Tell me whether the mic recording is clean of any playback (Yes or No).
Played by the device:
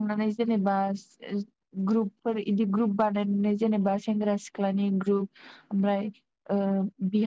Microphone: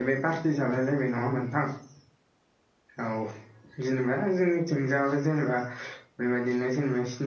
Yes